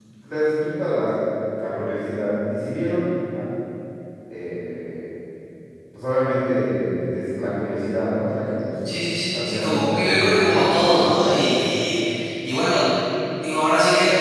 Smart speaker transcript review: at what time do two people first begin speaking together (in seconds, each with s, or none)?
9.3 s